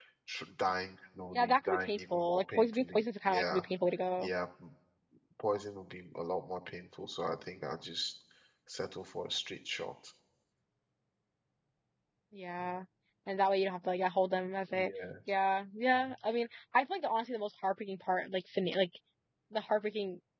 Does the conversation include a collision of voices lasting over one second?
Yes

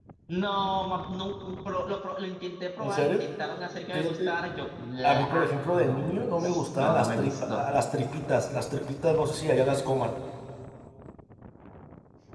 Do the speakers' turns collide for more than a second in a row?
Yes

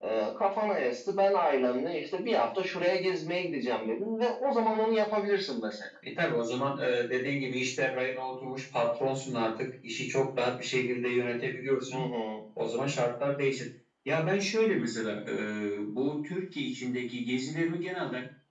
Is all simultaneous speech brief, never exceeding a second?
Yes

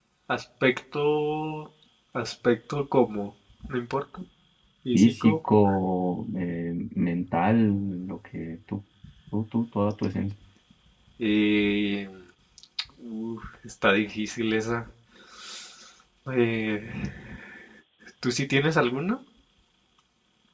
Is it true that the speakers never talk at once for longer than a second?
Yes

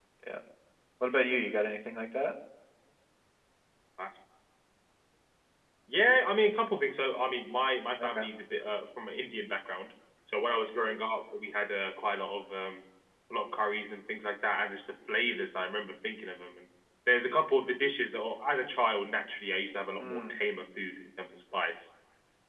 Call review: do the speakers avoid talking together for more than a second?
Yes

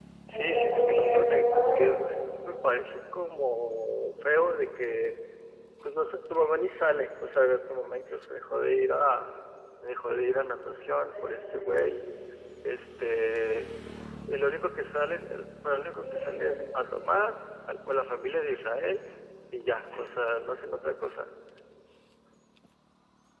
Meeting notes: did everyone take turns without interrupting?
No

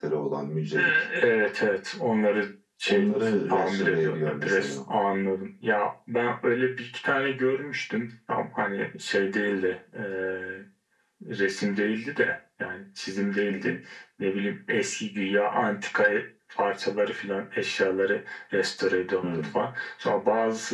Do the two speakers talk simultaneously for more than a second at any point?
Yes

